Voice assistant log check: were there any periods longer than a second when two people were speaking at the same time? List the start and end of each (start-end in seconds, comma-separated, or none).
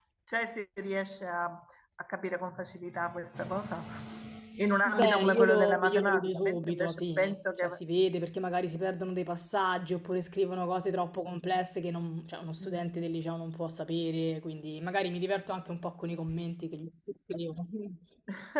4.8-7.6